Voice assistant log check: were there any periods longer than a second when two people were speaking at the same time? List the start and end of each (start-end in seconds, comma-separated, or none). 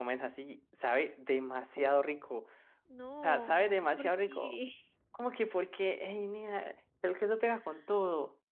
3.2-4.5